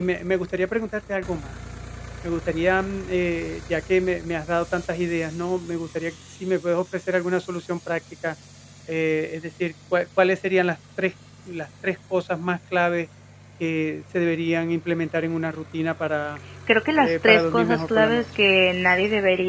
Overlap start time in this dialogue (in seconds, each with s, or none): 17.0 s